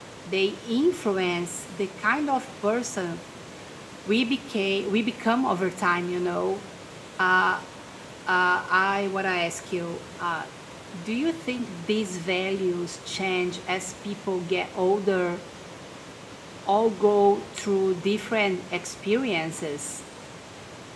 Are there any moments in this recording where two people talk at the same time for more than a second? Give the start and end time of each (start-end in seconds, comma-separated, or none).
none